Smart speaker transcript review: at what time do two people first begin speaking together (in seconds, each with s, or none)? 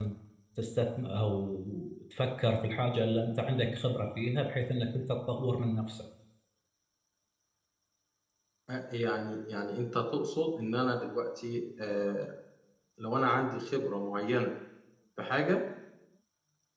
none